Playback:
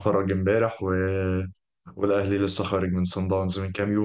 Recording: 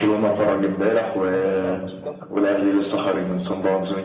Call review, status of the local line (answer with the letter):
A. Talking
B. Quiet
A